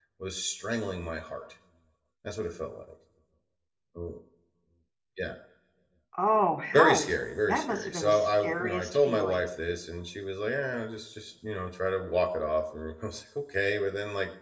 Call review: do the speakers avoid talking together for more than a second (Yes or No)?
No